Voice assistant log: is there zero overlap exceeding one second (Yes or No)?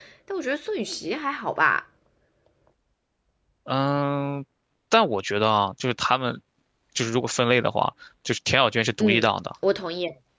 Yes